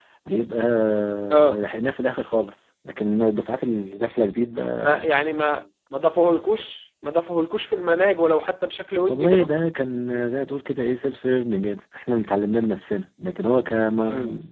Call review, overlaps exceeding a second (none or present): none